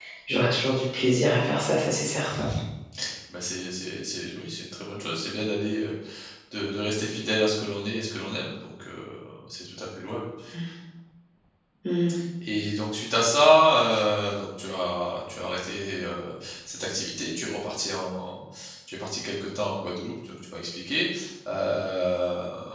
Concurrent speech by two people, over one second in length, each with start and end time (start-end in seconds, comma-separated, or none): none